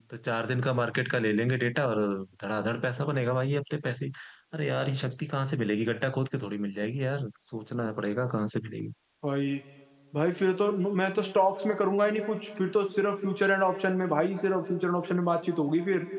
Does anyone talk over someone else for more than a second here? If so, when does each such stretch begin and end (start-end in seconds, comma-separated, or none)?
none